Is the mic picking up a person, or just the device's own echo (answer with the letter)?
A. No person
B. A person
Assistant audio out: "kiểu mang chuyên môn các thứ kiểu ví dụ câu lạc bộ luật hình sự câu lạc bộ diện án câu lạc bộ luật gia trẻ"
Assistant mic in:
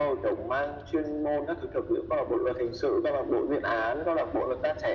A